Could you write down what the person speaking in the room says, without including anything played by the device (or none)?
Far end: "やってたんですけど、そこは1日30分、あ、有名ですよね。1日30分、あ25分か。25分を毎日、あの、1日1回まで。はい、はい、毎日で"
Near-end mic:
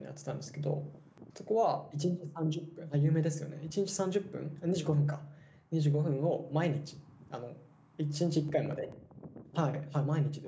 none